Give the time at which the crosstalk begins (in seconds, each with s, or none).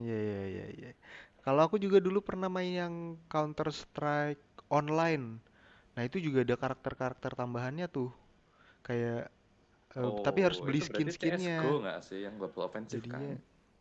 10.1 s